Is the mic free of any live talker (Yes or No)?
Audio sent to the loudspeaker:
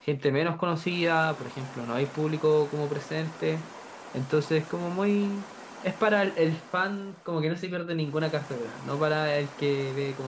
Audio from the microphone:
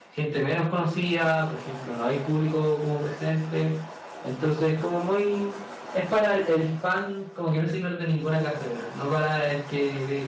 Yes